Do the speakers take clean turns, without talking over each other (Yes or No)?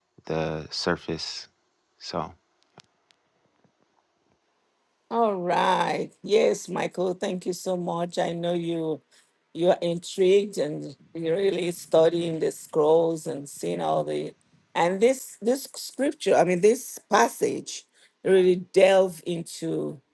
Yes